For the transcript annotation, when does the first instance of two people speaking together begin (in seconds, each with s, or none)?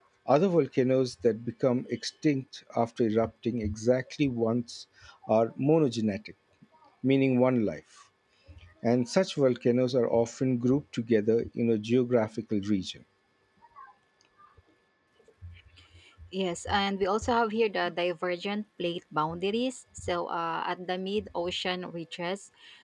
none